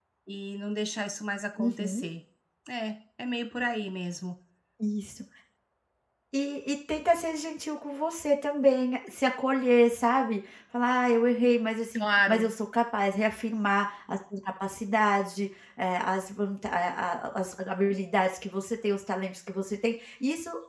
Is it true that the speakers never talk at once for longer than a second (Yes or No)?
Yes